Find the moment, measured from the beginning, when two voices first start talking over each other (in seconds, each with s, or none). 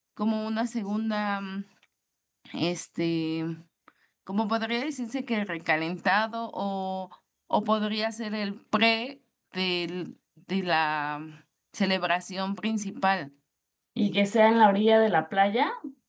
none